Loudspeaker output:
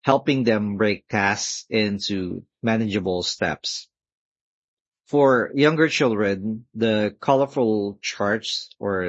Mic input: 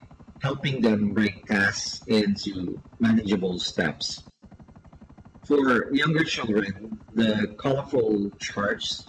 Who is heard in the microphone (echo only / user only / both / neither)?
echo only